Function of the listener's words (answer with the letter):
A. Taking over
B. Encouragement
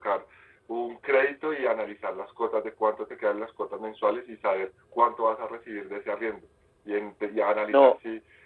B